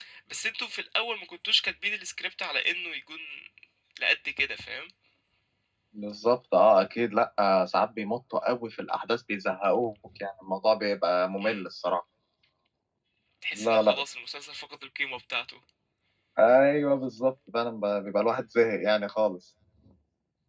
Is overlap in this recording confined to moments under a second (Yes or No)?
Yes